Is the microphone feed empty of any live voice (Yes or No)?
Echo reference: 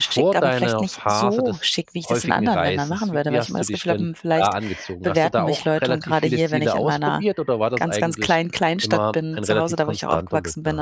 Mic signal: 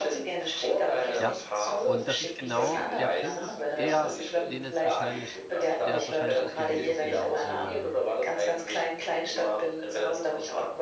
No